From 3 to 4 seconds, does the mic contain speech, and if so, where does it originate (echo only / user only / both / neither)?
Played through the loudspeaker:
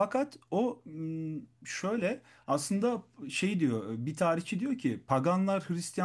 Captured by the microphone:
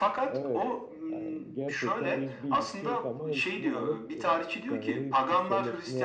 both